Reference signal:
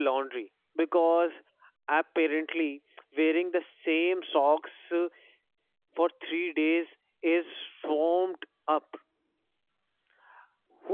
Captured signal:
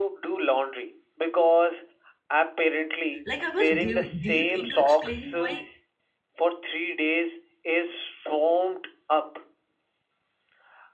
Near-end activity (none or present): present